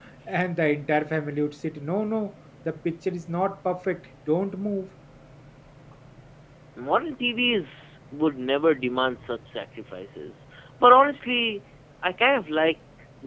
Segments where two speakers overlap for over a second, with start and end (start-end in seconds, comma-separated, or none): none